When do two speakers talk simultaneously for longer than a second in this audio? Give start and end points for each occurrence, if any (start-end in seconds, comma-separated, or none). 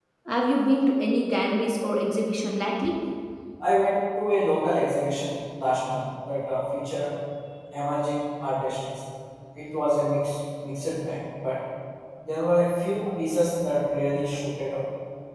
none